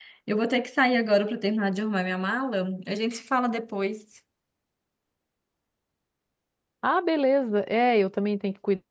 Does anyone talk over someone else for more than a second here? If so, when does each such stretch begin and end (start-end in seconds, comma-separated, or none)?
none